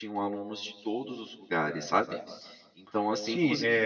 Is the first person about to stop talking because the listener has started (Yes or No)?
Yes